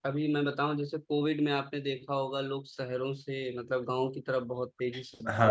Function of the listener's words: taking over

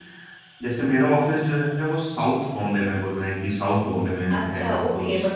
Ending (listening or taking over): taking over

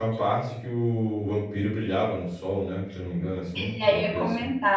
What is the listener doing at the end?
taking over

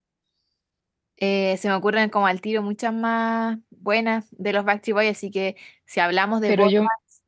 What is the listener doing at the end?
listening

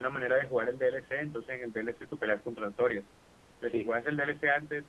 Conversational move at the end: listening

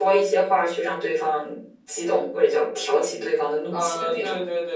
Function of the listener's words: taking over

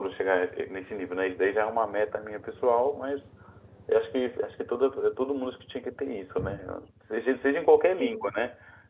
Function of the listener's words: listening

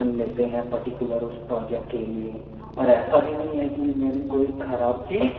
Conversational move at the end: taking over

